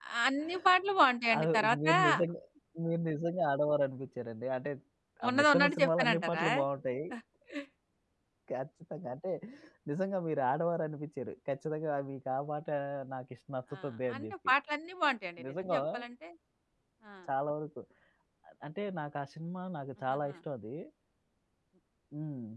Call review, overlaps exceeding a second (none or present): present